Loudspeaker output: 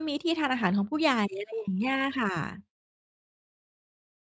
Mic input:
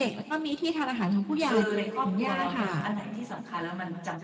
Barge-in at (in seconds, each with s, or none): 1.5 s